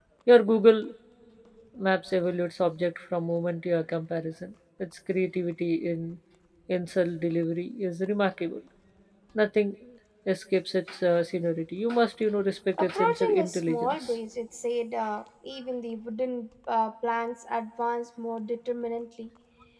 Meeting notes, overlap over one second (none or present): present